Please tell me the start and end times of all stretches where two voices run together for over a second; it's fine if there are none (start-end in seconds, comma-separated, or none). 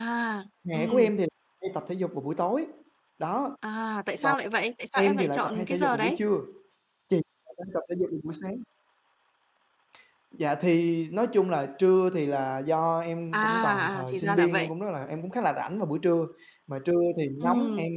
5.0-6.2, 13.3-14.7